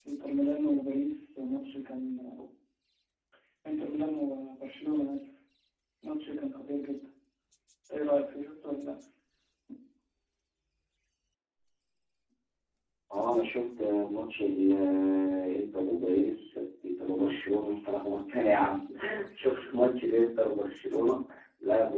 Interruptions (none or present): none